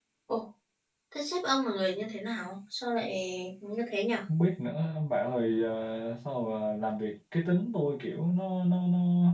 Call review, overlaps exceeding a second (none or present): none